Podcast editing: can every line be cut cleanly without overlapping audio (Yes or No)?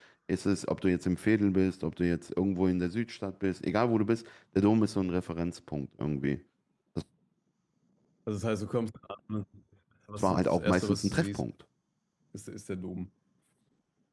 No